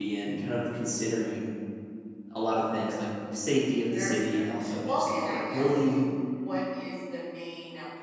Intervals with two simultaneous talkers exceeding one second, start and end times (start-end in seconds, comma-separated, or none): 4.0-6.0